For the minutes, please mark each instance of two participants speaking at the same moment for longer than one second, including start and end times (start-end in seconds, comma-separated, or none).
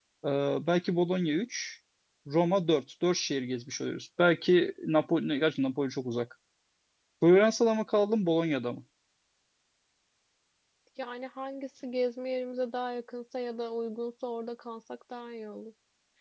none